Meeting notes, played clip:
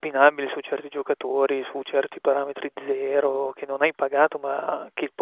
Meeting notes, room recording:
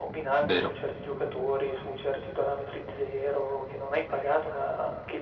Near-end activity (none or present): present